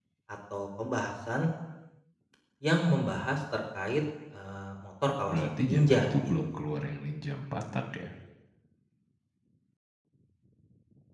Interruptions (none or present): present